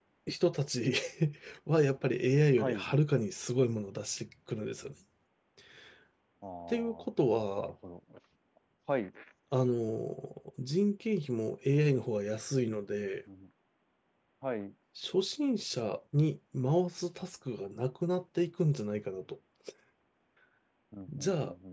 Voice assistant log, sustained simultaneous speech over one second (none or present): none